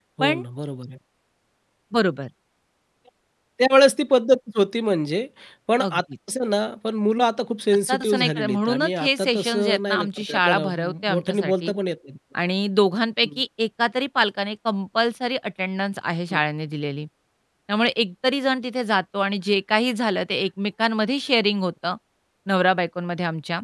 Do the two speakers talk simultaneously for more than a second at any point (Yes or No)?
Yes